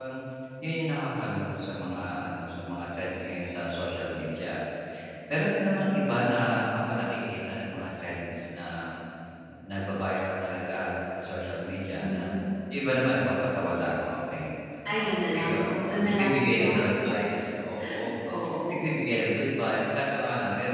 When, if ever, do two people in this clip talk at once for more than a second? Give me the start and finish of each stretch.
14.9-16.8

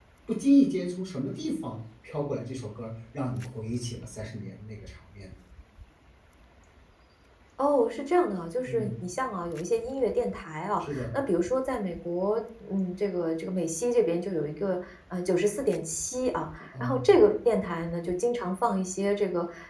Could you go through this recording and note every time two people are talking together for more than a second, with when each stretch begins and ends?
none

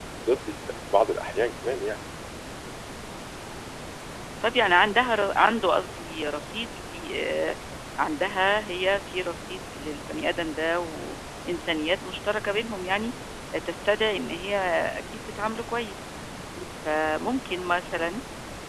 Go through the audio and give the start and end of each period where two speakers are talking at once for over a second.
none

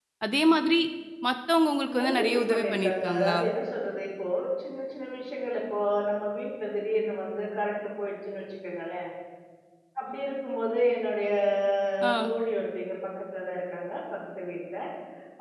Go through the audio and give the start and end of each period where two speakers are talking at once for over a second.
2.0-3.4

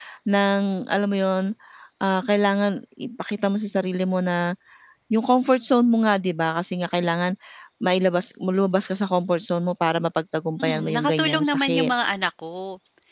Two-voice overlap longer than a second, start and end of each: 10.6-11.9

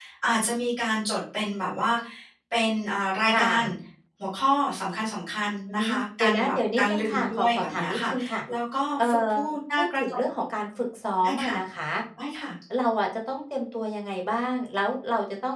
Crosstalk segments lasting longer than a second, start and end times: 5.7-8.1

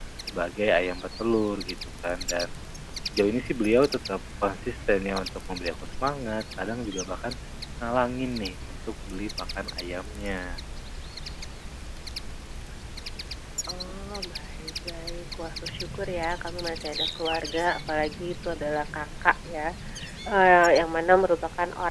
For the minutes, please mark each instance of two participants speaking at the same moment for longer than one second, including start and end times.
none

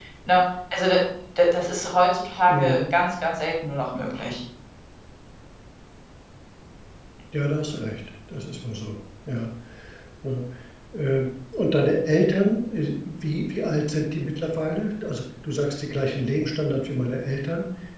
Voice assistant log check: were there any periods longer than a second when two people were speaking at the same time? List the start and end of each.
none

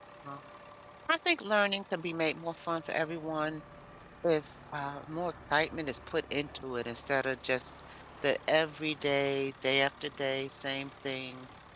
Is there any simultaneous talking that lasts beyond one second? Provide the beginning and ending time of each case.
none

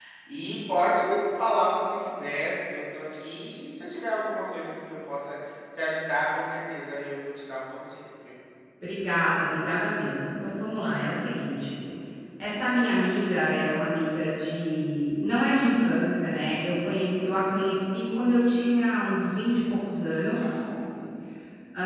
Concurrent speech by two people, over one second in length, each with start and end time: none

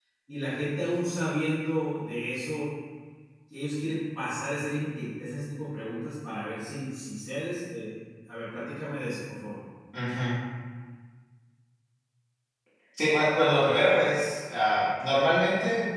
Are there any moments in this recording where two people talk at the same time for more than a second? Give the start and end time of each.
none

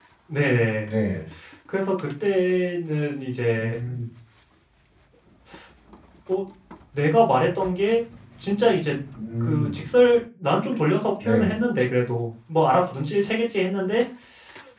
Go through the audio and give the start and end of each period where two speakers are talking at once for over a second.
none

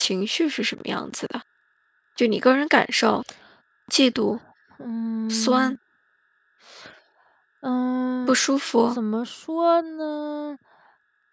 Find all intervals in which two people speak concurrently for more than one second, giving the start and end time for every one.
none

